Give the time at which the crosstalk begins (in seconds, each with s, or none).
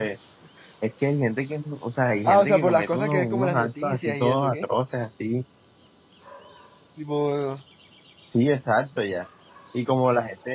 2.3 s